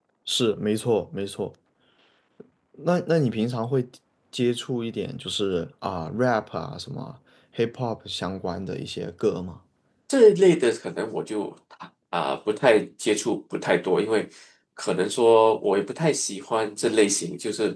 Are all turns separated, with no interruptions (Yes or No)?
Yes